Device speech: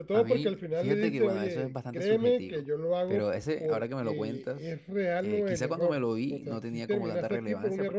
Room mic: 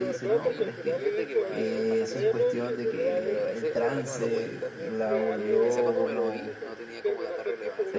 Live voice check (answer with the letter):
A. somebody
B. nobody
A